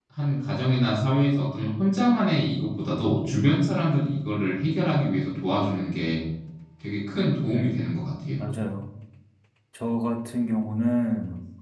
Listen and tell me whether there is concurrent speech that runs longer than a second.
No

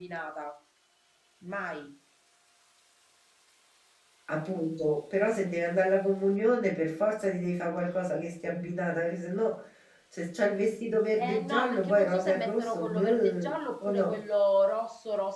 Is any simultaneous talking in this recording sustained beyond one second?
Yes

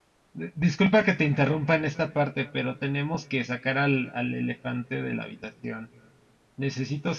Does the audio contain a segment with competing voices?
No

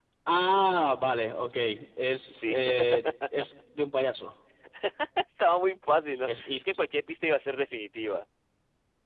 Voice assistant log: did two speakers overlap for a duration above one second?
No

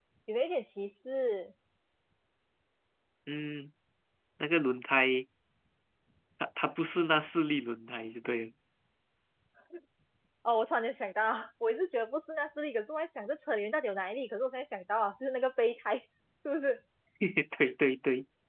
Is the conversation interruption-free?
Yes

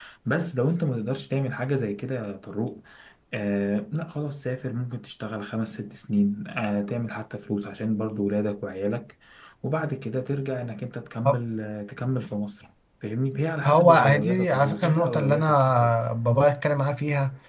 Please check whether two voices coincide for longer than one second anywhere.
Yes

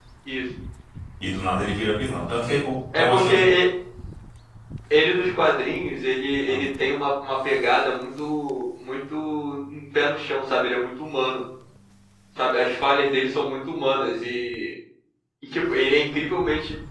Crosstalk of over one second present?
No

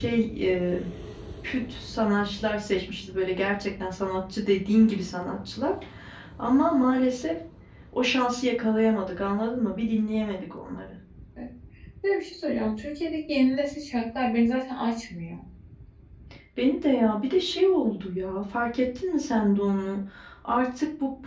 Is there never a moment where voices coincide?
Yes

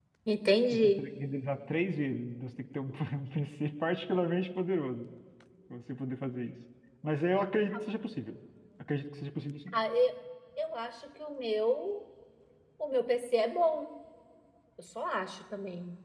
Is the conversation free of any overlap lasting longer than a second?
Yes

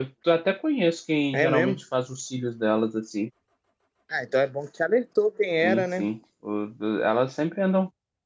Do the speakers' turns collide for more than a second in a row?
No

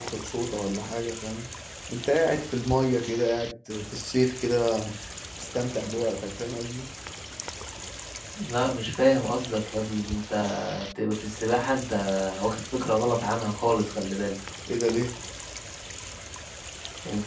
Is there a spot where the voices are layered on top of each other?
No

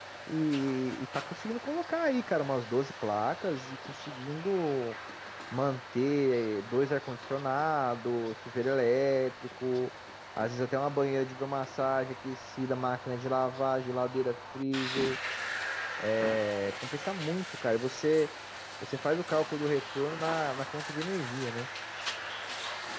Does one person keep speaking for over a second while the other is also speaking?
No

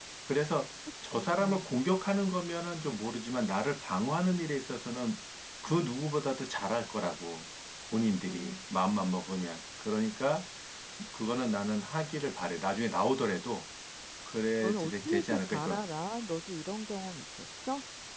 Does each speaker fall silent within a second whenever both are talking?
No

